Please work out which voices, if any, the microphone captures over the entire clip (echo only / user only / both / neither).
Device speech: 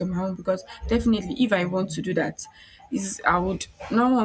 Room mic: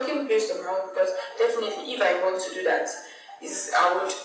echo only